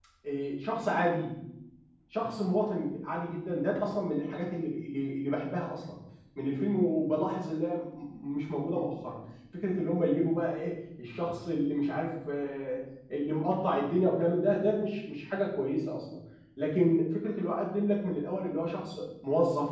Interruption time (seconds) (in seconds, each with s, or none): none